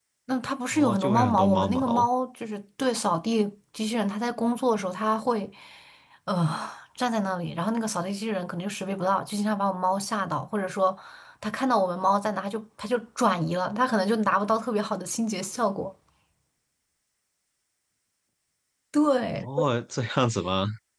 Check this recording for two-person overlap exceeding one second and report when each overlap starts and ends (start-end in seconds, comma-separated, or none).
0.7-2.1